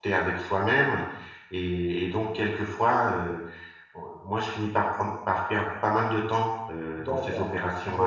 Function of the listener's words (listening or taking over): taking over